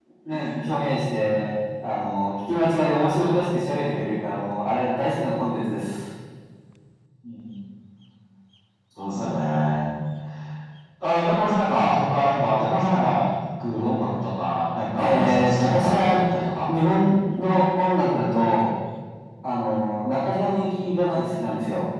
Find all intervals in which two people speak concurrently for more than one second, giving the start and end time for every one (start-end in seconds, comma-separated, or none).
15.0-16.2